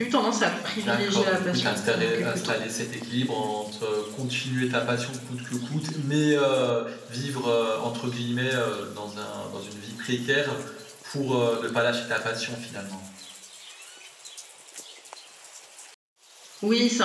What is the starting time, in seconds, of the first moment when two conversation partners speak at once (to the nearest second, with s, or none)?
1 s